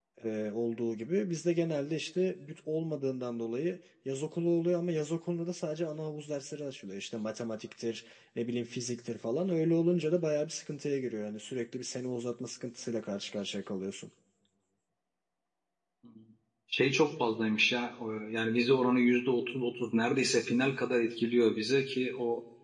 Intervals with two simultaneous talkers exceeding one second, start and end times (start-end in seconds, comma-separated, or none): none